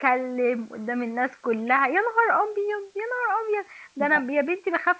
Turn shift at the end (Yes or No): No